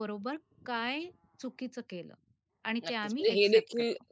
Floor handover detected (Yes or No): Yes